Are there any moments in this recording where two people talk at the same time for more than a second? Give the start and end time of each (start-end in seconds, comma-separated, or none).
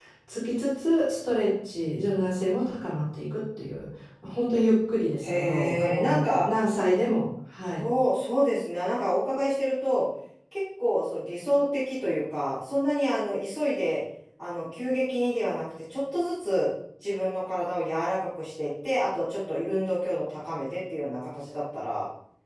5.2-6.5